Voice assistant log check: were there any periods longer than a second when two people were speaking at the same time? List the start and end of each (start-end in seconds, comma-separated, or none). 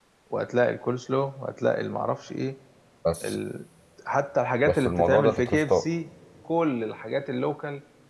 4.7-5.8